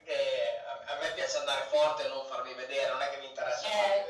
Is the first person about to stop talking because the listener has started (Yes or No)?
Yes